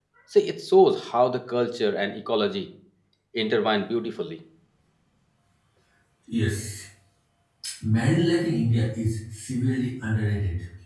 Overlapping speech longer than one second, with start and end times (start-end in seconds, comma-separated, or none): none